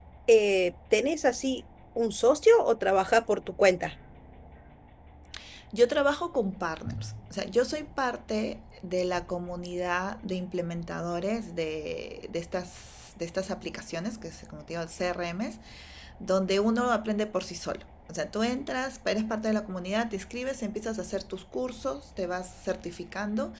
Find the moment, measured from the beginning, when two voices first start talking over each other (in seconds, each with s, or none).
none